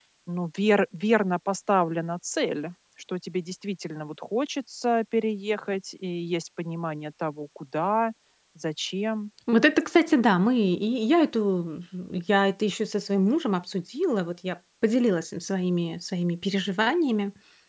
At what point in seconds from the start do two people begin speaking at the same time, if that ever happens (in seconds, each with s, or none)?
none